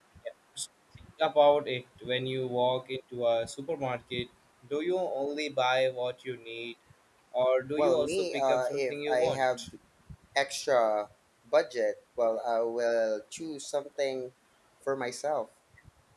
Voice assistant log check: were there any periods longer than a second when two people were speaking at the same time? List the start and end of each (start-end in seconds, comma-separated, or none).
7.8-9.7